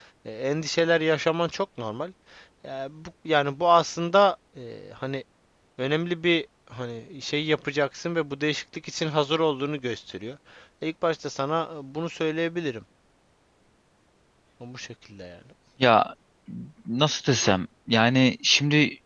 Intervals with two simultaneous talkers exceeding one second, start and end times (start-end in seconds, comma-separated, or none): none